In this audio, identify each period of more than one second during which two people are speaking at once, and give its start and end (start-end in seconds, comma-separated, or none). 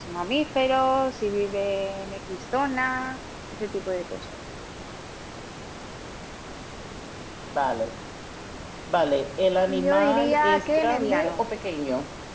9.8-11.3